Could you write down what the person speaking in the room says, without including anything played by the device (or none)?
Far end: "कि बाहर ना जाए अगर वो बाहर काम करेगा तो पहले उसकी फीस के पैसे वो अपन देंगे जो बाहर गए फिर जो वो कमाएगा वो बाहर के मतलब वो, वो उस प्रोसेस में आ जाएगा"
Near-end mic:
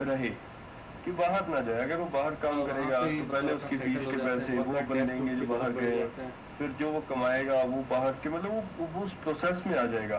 वहां पे मतलब अपना सेटल हो जाते हैं बहुत बार डेप्ट उनके बहुत बढ़ जाते हैं